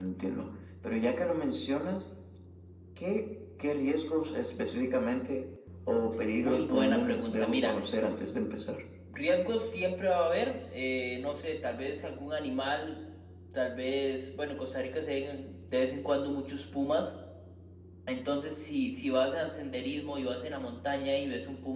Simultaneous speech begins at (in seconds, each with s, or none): 6.4 s